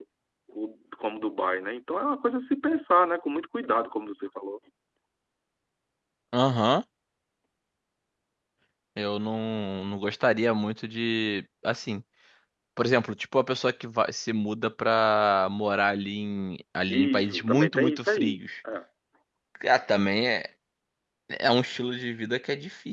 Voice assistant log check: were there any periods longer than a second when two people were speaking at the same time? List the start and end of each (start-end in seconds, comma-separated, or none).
16.9-18.4